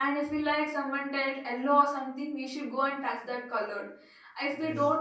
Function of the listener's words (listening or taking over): listening